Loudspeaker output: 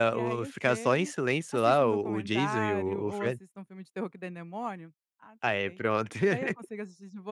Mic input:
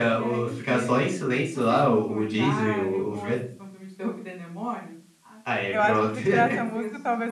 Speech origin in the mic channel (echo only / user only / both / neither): both